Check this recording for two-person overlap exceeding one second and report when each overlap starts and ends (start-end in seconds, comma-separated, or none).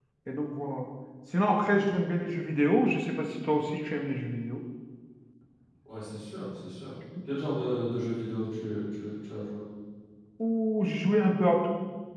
none